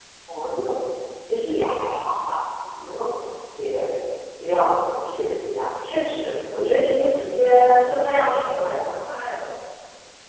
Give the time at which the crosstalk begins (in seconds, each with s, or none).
5.8 s